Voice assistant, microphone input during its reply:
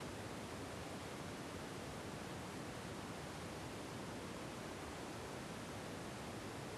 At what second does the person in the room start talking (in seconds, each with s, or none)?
none